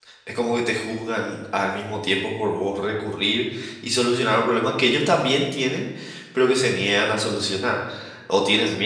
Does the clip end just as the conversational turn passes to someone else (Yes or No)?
No